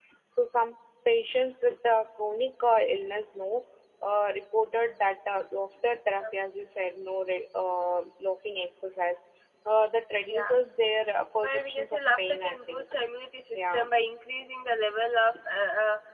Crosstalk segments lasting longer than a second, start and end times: 11.4-12.8

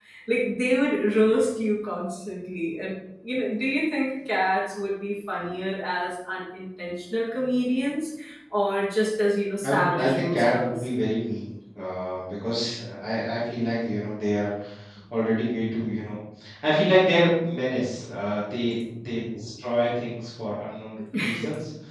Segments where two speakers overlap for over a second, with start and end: 9.6-10.9

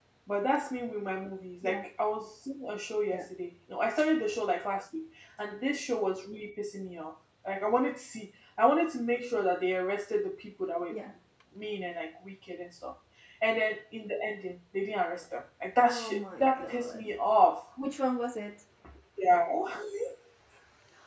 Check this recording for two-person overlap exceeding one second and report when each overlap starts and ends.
15.8-17.1

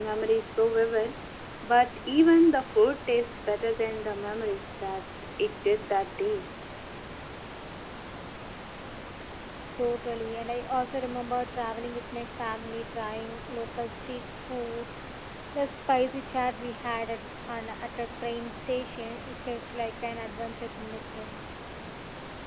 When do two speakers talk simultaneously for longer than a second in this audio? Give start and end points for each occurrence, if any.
none

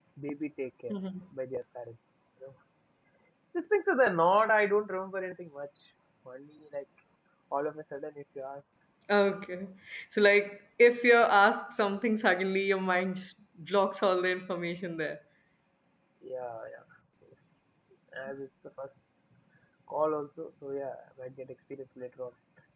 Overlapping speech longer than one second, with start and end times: none

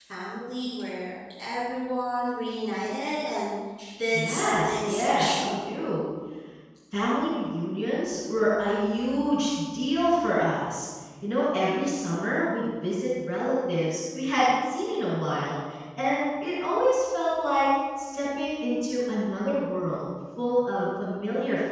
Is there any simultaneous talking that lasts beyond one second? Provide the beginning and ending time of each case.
4.1-5.5

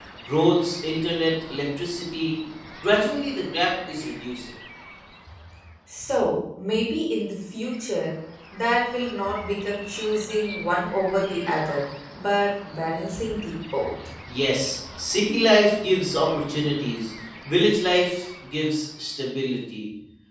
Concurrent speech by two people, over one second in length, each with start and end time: none

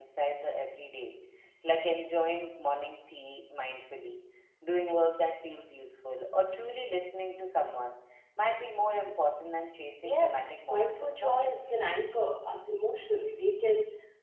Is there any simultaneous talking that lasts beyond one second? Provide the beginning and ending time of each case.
10.0-11.5

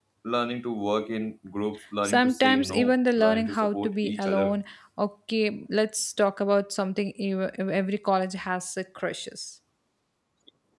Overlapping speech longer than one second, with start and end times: 2.0-4.6

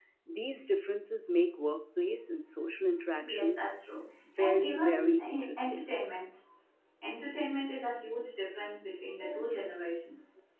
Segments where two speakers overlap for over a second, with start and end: 4.4-5.8

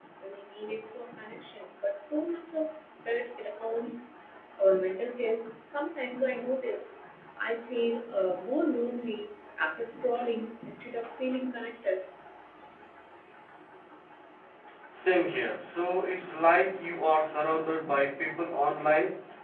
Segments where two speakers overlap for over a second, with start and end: none

